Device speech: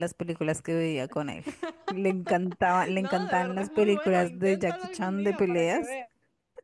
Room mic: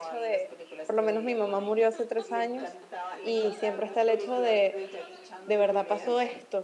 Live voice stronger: Yes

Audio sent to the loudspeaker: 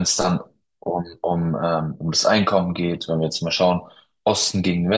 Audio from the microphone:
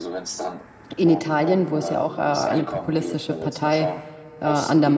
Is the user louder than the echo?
Yes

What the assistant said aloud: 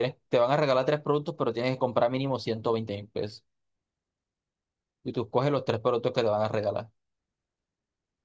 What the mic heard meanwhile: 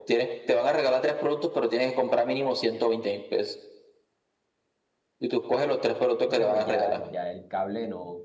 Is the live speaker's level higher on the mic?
No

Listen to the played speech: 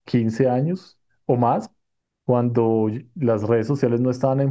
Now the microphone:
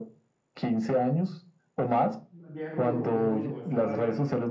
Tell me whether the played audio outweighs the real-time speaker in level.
Yes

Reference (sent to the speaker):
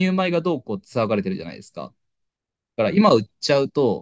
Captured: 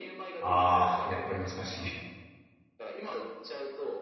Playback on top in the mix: No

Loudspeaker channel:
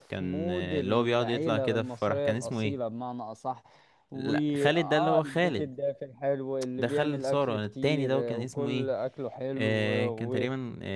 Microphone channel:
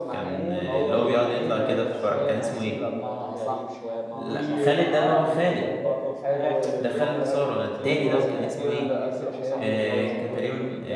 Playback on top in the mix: Yes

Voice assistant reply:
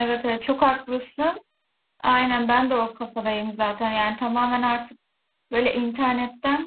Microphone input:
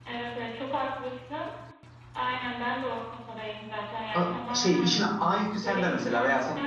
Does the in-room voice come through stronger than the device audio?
Yes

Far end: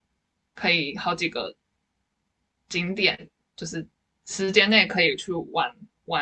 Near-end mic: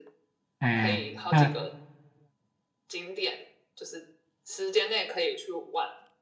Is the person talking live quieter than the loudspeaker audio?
No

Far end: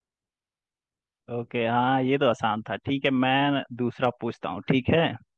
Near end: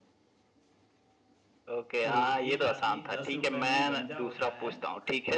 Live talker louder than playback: No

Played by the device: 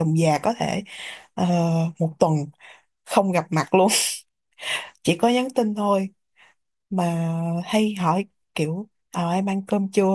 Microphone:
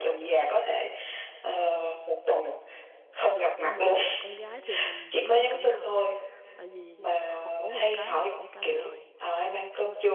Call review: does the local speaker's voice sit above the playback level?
No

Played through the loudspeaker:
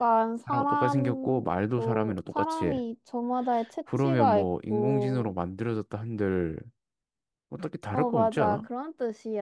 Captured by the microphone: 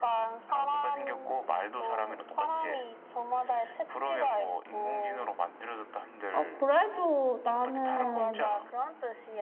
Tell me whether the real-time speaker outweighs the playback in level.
Yes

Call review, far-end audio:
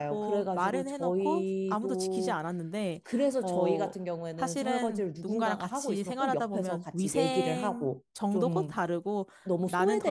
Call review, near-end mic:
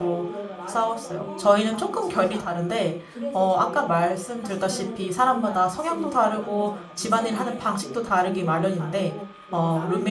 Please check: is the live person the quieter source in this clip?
No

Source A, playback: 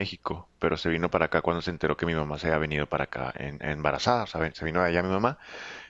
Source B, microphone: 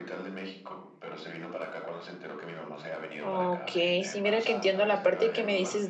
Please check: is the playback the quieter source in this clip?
Yes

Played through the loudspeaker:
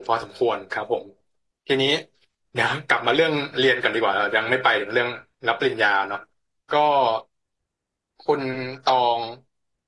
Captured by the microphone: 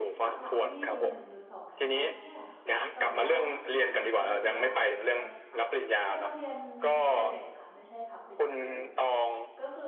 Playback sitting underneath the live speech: No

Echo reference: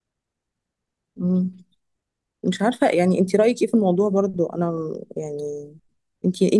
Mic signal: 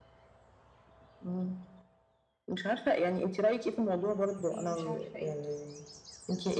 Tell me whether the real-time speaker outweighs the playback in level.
No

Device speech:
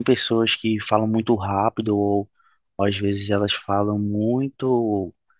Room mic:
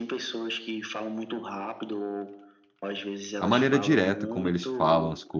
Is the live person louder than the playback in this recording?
Yes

